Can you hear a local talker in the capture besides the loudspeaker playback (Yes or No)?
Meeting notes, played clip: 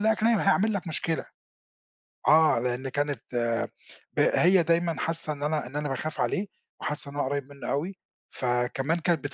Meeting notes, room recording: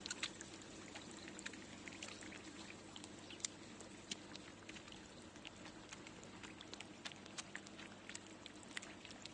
No